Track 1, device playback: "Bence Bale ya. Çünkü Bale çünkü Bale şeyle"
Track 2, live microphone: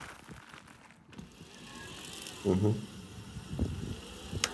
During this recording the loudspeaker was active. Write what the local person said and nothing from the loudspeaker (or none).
Hı hı.